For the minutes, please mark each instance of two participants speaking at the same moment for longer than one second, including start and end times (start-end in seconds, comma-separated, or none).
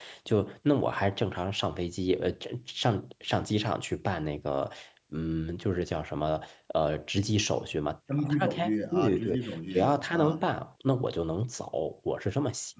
8.2-10.4